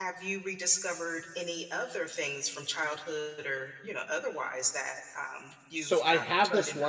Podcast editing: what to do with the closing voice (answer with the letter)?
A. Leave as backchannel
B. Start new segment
B